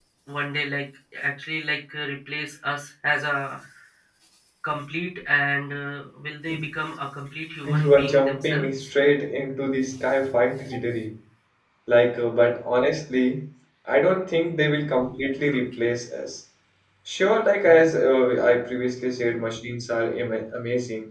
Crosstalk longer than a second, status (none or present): present